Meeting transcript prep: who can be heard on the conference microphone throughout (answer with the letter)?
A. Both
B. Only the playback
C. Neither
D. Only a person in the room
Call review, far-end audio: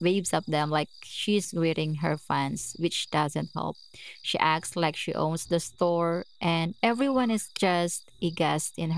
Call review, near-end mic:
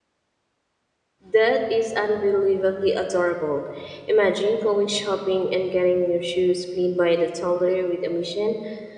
D